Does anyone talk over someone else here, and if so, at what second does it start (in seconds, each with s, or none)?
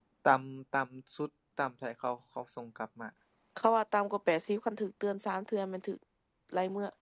none